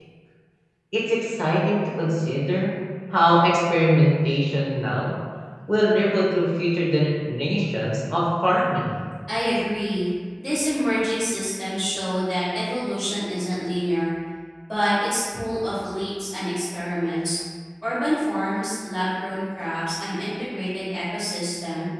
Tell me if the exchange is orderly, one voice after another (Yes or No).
Yes